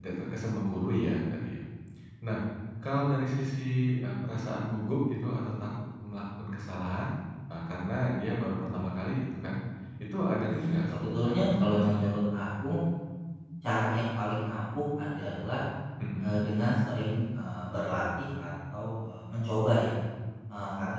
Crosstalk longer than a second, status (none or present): present